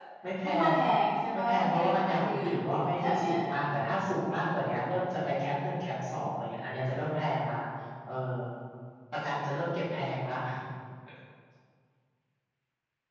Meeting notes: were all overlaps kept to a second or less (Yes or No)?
No